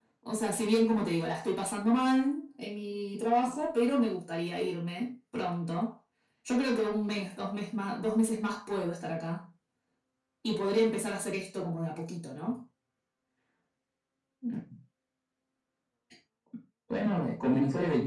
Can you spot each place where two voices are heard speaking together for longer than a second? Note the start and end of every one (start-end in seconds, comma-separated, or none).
none